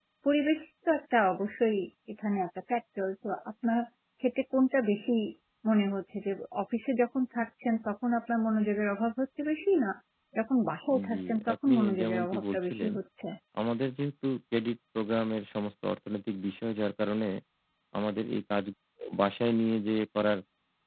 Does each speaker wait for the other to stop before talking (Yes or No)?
No